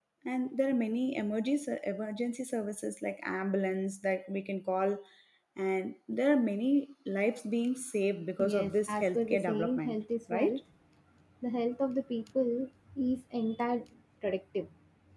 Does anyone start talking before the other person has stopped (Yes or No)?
Yes